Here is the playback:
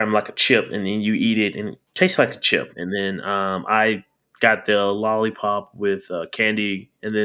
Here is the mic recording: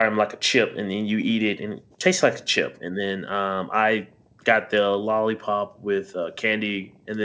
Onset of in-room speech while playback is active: none

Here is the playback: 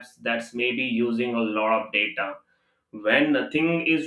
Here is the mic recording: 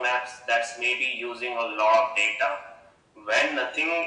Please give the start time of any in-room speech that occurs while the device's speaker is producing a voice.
none

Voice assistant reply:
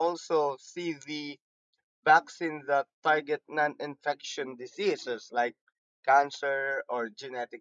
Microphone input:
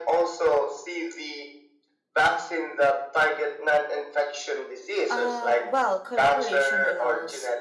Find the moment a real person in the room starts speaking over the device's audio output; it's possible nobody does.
5.1 s

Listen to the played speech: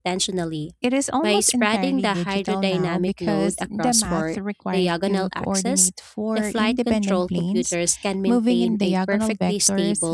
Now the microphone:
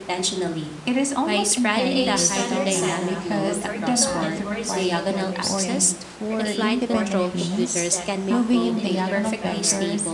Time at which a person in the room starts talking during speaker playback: 1.8 s

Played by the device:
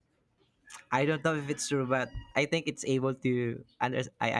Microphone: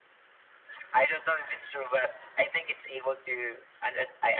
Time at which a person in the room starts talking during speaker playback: none

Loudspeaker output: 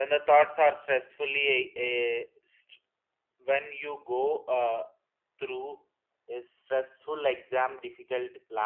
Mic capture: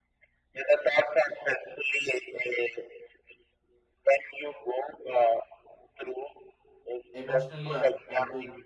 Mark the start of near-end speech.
7.1 s

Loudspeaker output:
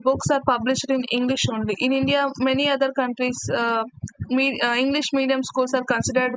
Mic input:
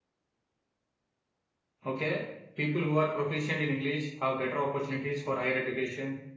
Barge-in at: 1.8 s

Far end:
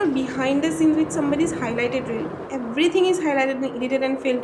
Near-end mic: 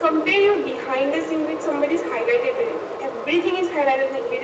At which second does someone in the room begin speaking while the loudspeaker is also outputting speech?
none

